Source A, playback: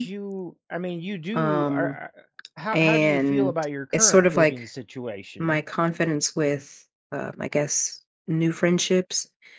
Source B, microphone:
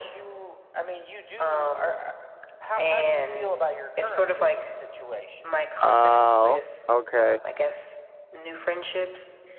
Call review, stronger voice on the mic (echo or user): user